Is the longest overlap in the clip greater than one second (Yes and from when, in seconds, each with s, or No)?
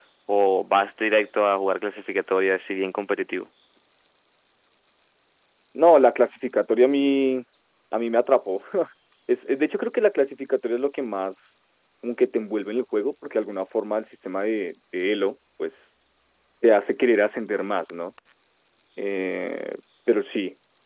No